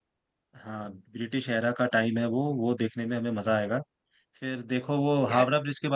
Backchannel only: Yes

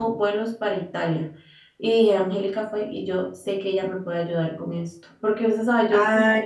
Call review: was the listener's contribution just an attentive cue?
Yes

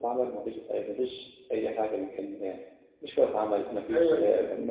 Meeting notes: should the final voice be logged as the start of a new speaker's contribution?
No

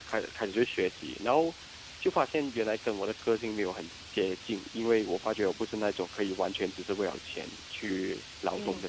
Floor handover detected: Yes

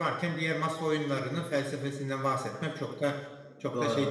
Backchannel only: No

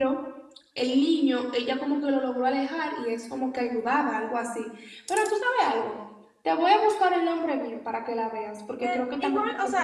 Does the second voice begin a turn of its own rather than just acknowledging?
Yes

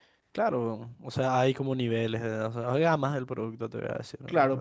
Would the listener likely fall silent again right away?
No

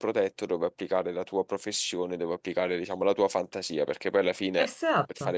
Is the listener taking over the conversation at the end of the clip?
No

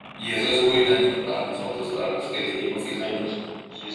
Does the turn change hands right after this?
Yes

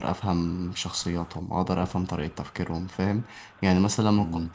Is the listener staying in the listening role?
Yes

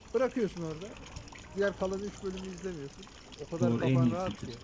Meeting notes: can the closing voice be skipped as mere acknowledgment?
No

